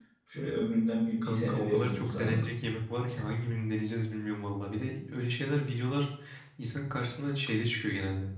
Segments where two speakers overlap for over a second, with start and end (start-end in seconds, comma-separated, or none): 1.2-2.5